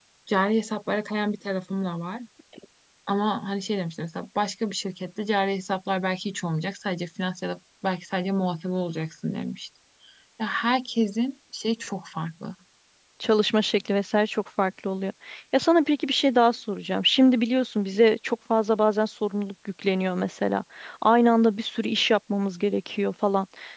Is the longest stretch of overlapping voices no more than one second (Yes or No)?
Yes